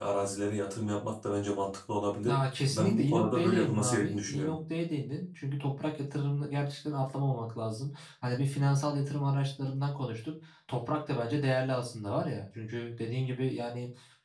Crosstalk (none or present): present